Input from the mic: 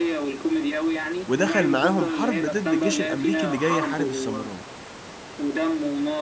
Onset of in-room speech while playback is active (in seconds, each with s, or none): 1.3 s